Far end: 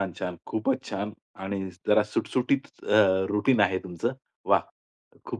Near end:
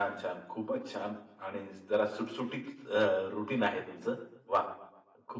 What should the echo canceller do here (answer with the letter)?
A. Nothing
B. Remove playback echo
B